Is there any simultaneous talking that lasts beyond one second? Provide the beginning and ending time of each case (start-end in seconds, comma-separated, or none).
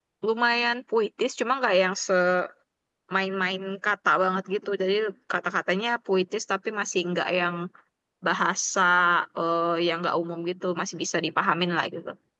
none